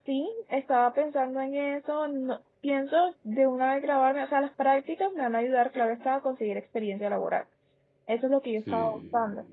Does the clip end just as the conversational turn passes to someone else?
No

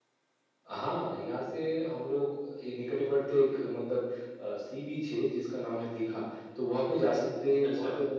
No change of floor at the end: Yes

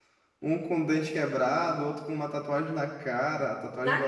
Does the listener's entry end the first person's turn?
No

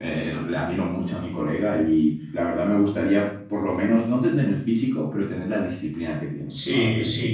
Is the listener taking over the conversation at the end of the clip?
Yes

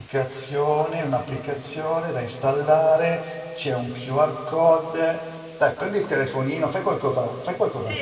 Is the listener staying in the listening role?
No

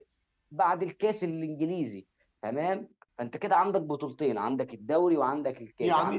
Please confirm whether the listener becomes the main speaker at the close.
Yes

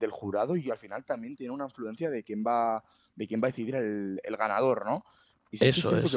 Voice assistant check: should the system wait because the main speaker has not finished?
Yes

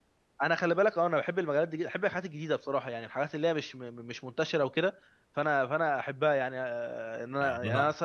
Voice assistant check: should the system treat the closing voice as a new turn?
No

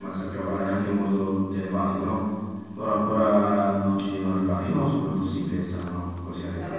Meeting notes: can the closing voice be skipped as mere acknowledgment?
No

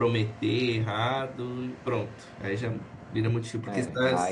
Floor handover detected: Yes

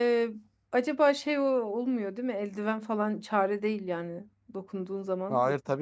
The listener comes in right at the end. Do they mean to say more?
Yes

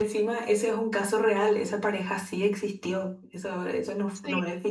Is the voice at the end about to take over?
No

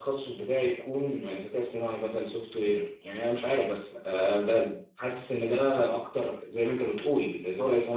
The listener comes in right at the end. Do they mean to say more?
No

